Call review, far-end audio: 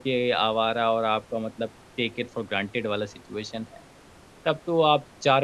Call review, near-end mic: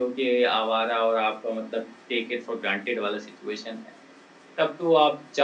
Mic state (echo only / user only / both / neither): echo only